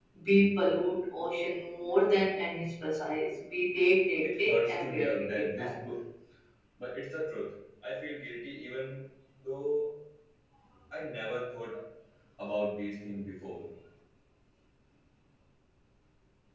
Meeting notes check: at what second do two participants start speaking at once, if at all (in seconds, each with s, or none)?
4.2 s